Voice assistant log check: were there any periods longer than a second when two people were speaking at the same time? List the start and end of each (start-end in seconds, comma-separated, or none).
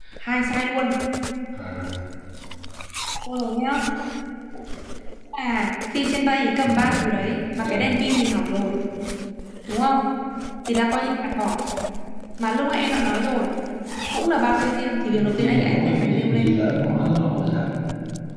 15.1-16.6